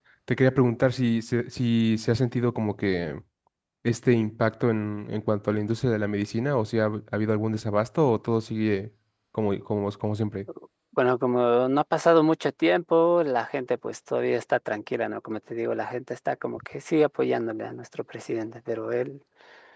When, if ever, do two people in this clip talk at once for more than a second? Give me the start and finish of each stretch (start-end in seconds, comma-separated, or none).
none